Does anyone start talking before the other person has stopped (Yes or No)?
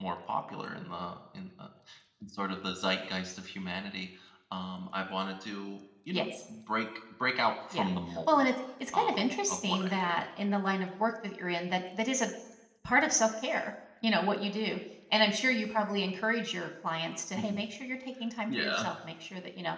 Yes